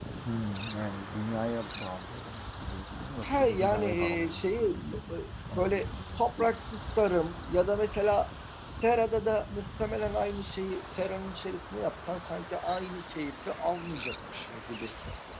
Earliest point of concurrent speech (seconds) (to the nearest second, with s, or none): 3 s